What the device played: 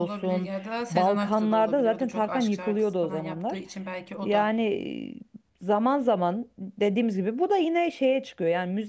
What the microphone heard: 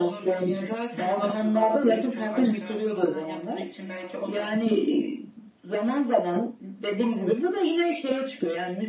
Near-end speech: none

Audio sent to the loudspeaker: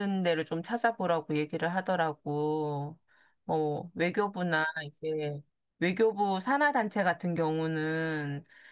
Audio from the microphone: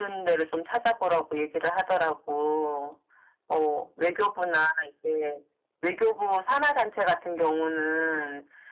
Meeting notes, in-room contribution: none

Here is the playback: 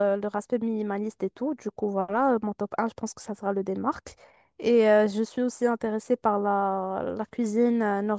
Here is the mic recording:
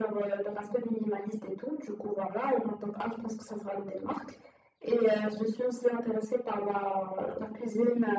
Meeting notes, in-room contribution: none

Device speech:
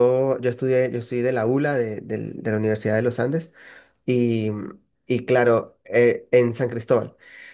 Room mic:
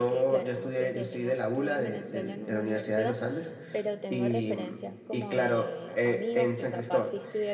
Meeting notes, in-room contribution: present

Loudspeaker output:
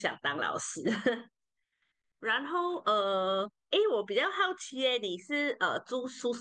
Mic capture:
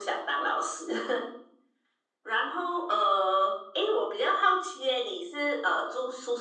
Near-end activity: none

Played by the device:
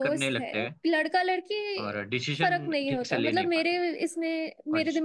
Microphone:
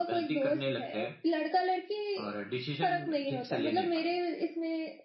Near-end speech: none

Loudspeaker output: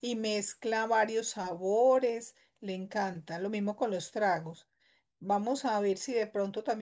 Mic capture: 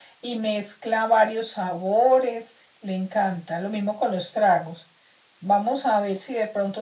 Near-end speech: none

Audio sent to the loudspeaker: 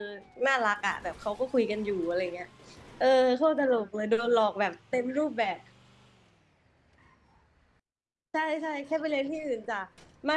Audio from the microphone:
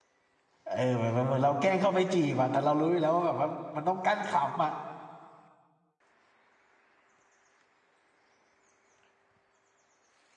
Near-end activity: present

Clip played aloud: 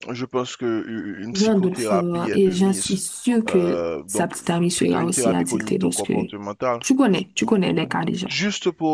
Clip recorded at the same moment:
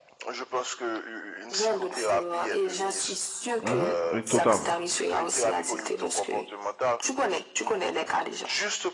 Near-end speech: present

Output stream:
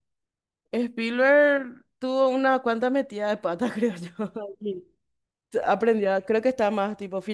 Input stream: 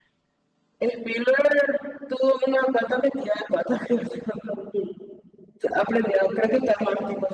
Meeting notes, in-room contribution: none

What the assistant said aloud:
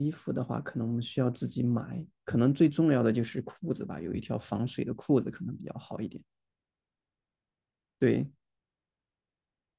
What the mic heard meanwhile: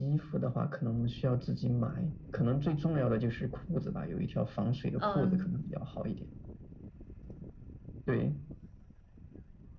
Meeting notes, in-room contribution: present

